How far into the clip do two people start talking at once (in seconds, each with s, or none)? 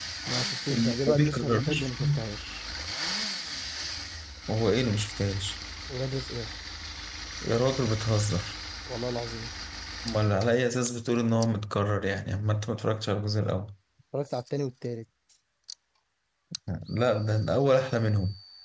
0.7 s